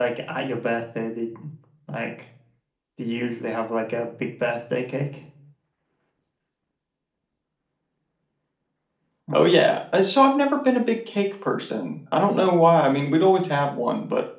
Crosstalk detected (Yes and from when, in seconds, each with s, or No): No